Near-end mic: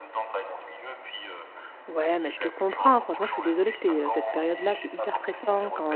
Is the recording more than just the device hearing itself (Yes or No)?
Yes